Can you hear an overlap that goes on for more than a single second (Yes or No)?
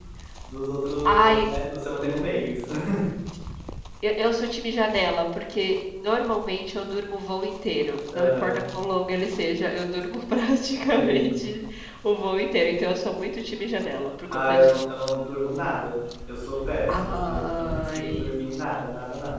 Yes